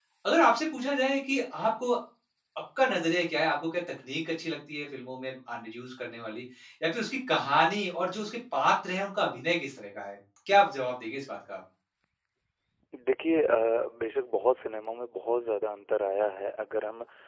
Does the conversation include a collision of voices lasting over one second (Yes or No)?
No